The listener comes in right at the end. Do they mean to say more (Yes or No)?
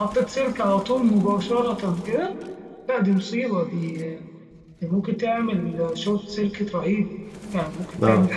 Yes